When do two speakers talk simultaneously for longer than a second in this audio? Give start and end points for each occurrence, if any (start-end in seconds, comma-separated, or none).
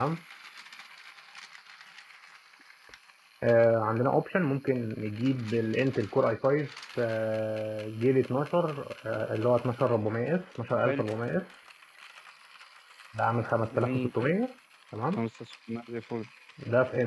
none